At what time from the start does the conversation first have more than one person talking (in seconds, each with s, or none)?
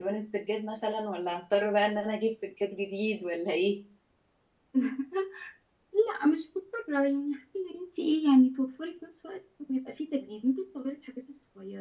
none